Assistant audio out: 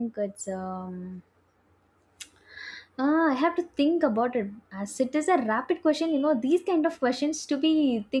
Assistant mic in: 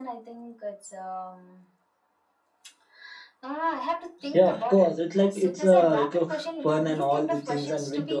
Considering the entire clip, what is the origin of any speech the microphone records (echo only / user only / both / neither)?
both